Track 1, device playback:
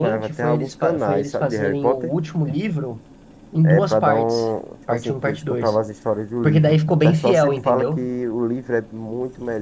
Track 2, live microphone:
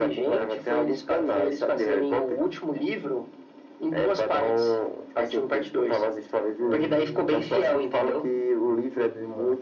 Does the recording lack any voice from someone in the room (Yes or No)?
No